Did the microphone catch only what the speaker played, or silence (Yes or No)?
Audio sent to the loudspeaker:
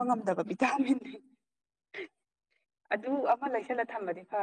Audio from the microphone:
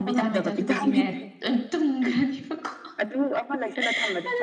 No